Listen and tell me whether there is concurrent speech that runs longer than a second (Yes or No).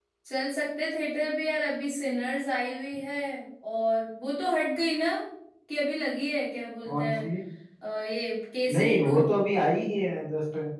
No